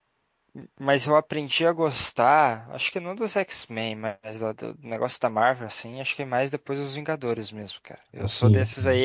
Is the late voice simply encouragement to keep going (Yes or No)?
Yes